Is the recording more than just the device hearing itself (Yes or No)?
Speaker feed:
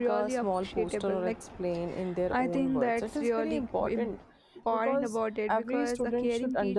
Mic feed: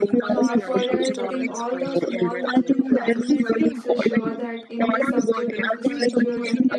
Yes